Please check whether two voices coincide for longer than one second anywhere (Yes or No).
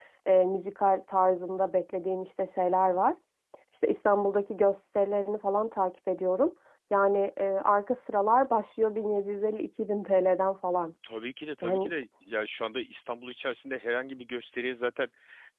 No